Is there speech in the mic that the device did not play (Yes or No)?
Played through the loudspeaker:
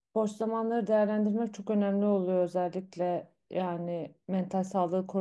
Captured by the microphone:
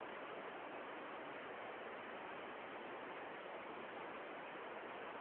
No